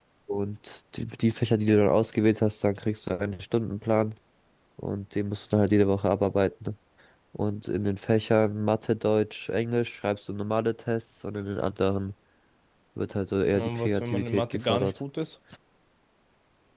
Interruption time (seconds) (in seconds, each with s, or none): 13.5 s